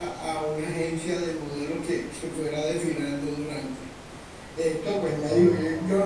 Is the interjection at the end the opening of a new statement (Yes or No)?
No